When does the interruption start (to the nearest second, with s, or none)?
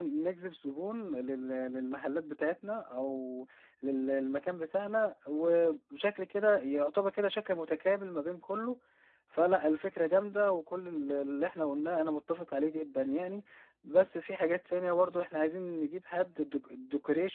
none